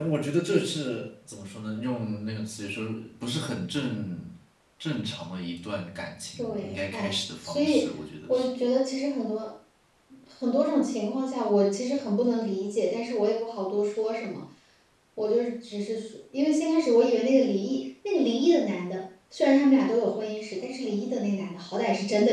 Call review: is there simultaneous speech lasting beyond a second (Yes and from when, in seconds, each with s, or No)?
Yes, from 6.4 s